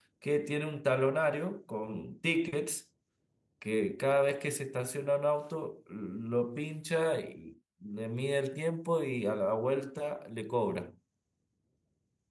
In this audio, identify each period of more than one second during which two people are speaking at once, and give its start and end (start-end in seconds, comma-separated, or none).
none